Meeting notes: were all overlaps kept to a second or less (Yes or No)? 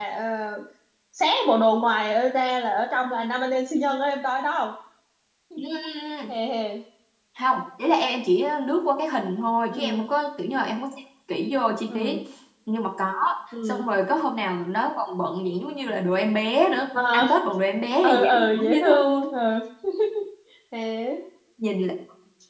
No